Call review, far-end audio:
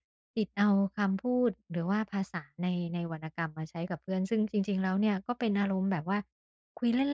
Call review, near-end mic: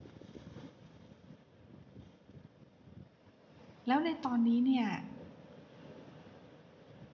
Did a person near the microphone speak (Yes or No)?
Yes